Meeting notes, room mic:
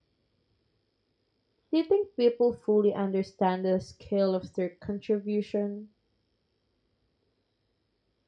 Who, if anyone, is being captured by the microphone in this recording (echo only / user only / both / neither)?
user only